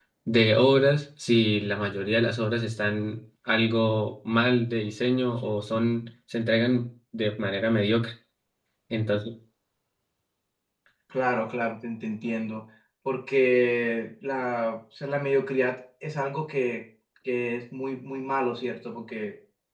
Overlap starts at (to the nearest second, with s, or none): none